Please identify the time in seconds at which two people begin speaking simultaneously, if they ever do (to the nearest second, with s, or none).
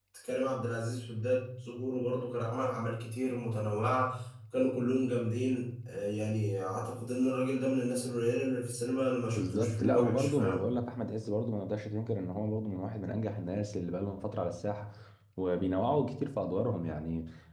9 s